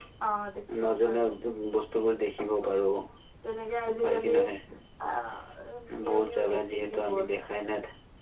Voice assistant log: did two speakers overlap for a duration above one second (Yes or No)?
Yes